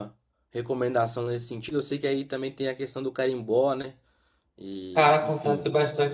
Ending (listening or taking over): taking over